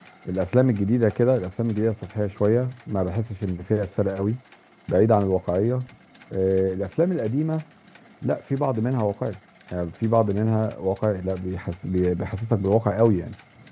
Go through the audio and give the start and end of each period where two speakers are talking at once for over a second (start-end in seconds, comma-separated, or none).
none